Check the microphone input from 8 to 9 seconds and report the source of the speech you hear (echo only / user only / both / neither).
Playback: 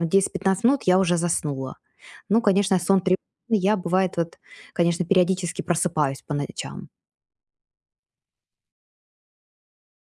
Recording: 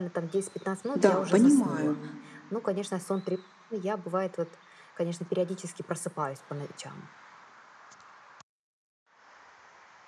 neither